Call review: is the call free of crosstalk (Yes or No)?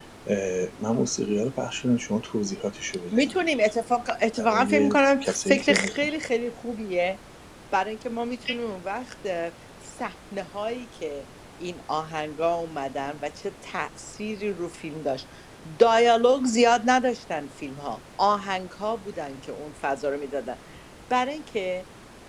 No